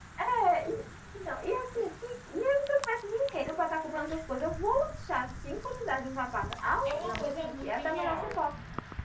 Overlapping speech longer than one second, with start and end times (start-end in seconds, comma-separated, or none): 6.8-8.4